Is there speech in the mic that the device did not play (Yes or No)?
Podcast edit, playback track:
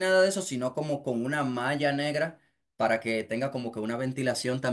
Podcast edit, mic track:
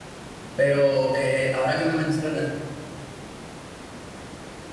Yes